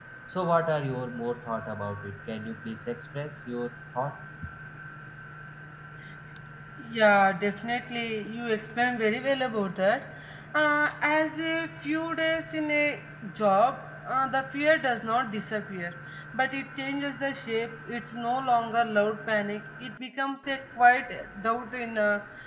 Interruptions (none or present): none